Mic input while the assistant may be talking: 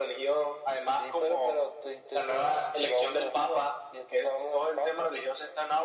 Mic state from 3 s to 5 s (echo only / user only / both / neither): echo only